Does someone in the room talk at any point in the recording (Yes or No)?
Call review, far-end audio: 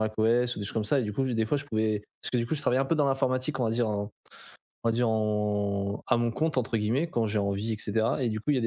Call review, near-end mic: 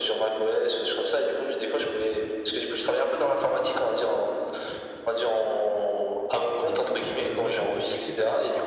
Yes